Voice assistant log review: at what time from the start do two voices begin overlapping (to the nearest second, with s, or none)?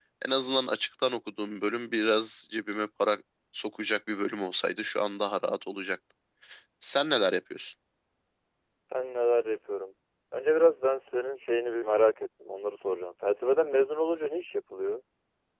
none